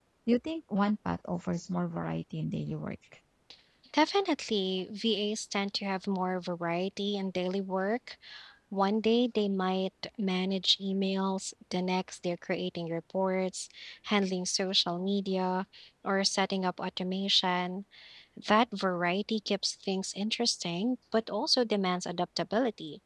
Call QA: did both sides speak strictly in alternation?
Yes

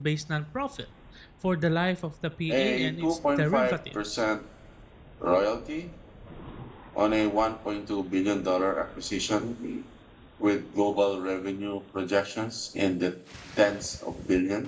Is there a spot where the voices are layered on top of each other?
Yes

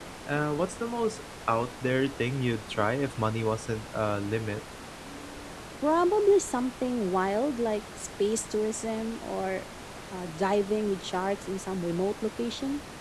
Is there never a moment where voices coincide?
Yes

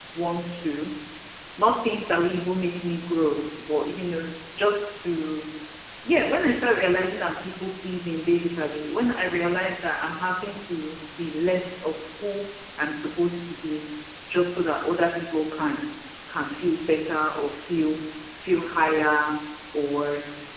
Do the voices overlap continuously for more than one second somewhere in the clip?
No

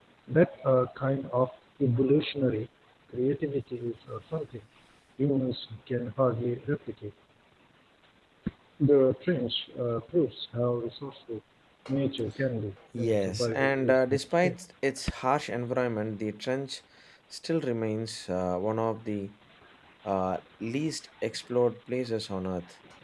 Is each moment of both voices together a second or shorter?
No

